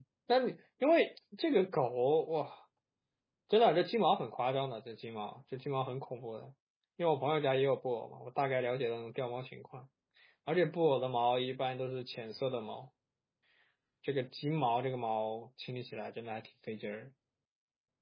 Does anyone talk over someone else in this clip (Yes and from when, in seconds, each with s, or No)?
No